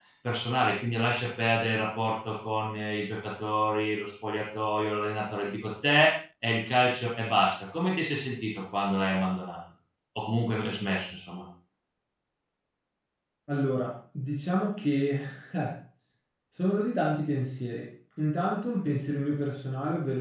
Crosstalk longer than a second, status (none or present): none